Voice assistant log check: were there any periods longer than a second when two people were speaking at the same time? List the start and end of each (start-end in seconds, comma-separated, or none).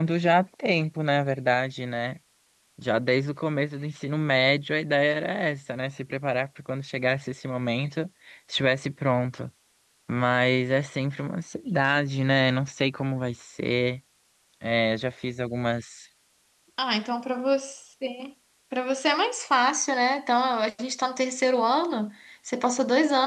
none